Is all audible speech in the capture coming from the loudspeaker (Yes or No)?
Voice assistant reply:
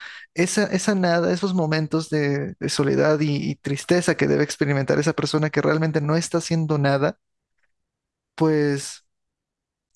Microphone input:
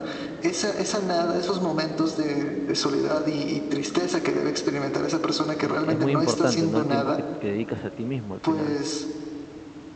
No